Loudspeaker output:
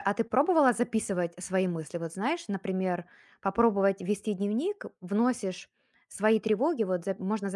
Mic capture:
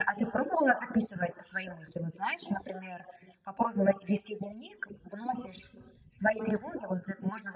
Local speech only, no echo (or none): none